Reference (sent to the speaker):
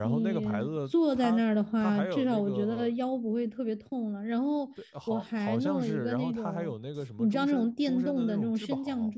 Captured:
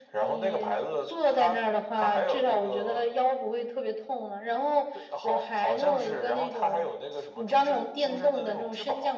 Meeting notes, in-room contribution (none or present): none